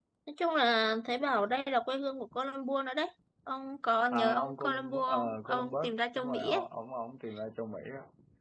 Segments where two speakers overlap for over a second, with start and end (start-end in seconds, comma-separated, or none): 4.1-6.7